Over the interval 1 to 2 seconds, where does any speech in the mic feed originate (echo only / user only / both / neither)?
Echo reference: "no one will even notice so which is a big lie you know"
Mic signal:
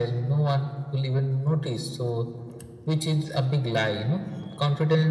echo only